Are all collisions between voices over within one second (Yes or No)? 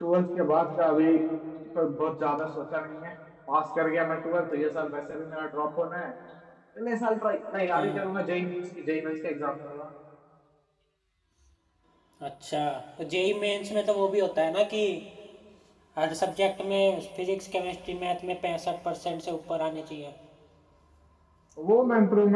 Yes